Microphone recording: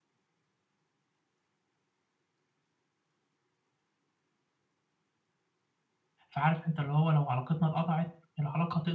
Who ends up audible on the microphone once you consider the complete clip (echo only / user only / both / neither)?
user only